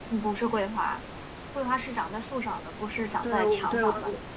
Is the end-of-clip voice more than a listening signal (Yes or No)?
Yes